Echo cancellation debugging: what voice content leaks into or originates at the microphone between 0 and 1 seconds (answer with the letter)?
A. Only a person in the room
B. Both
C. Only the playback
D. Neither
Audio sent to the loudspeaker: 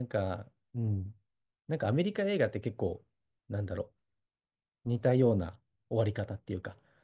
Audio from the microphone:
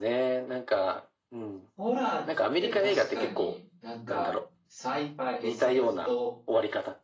C